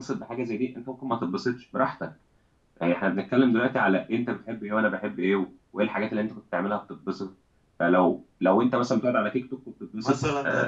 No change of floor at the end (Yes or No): No